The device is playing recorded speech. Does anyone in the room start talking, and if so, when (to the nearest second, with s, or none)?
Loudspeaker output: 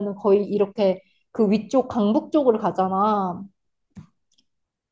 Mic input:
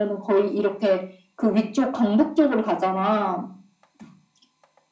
none